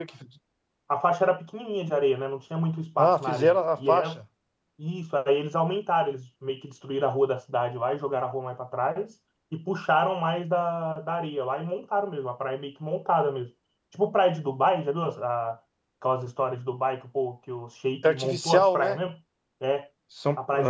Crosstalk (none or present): present